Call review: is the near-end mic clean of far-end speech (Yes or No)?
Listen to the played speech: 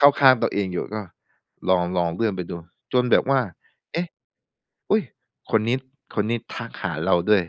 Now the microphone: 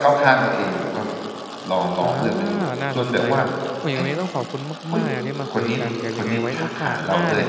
No